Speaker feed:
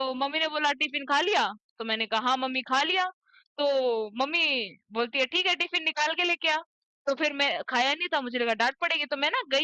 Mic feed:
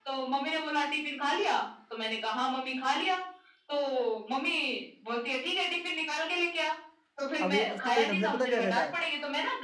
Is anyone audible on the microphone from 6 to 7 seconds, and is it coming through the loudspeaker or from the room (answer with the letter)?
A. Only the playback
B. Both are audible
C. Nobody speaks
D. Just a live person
A